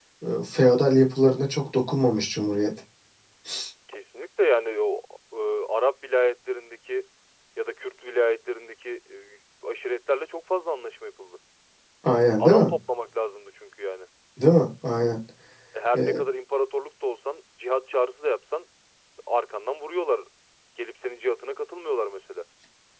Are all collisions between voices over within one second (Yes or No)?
Yes